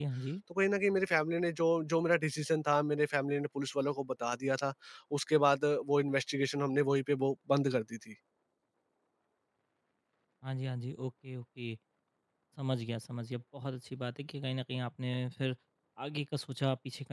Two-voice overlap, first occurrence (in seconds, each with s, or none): none